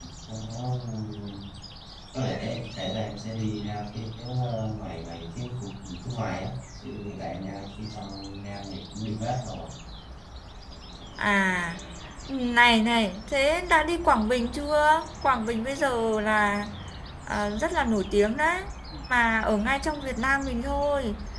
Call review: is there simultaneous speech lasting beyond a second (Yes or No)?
No